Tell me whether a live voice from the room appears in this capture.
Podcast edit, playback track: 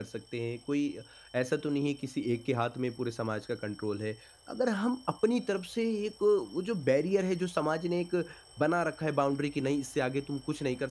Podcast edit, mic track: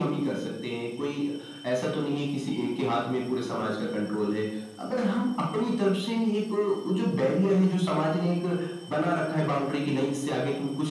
No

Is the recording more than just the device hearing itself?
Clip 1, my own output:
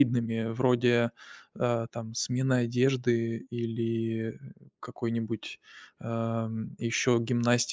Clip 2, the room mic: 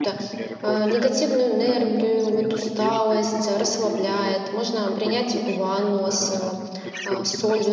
Yes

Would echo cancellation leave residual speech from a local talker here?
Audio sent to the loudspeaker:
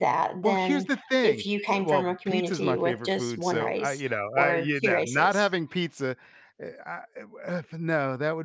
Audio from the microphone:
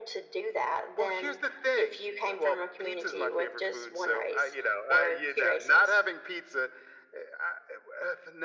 No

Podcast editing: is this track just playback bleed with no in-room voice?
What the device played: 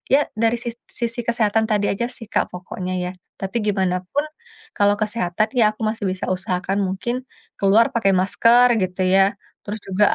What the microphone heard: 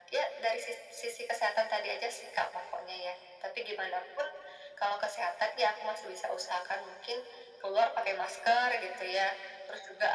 Yes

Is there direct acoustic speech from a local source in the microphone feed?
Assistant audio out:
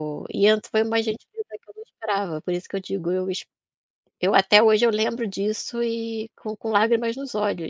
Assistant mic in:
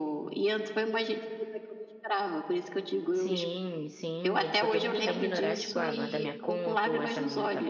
Yes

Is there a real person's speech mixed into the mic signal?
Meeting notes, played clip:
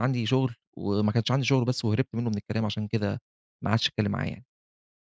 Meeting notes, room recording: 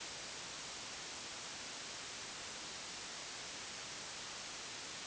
No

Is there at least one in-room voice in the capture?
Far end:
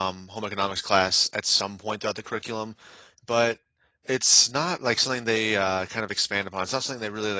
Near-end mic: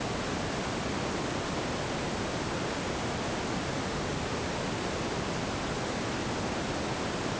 No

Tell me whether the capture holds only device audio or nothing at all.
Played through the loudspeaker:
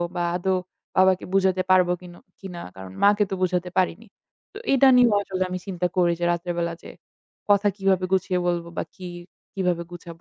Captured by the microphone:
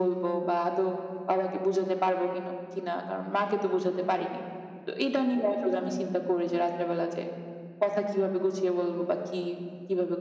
Yes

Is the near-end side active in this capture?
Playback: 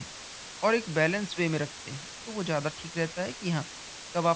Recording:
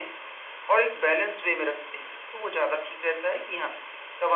No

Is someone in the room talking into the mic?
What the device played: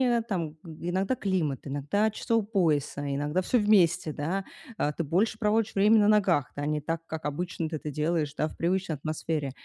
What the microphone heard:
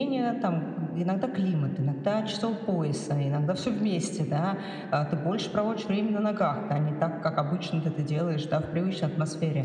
No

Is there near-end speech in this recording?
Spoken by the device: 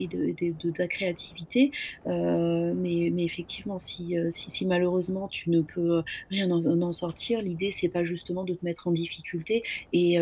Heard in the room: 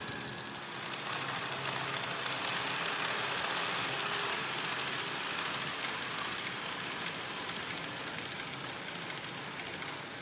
No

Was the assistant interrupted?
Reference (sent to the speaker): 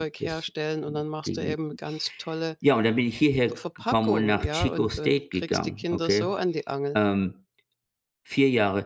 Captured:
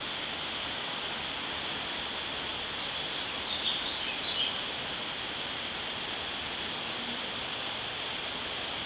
No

